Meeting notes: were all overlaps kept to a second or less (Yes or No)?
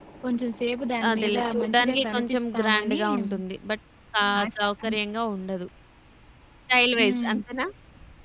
No